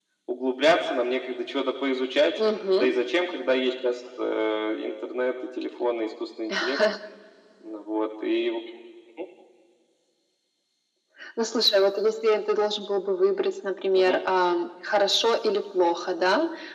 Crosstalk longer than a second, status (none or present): none